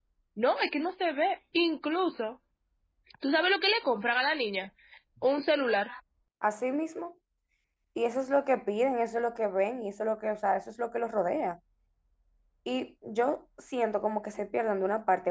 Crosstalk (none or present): none